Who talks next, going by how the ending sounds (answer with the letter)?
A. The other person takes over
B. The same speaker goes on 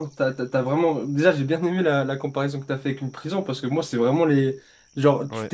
B